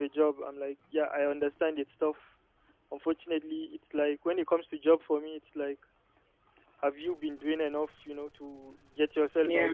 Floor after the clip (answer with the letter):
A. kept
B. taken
A